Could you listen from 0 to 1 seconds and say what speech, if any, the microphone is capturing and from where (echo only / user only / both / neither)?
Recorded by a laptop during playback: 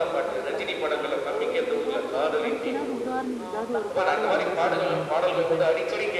echo only